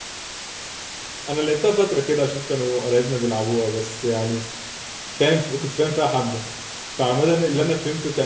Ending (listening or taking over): listening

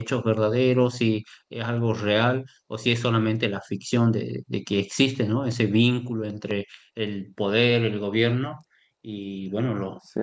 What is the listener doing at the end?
listening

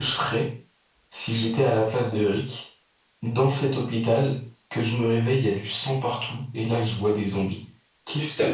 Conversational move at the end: listening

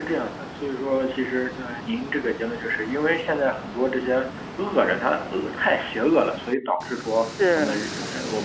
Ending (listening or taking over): listening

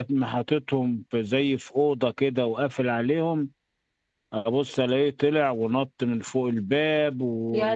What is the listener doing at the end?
listening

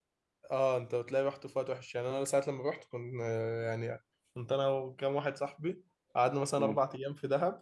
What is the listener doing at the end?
listening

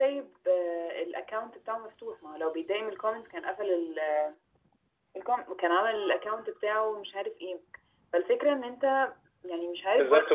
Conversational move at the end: taking over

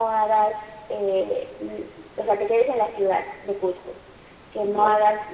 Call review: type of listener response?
listening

